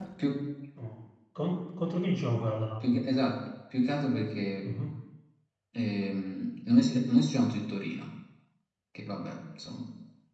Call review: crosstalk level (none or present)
none